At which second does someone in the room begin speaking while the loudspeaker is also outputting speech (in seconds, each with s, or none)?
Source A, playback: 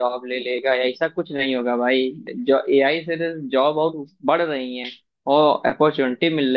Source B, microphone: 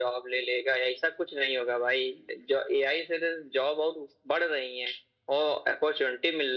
none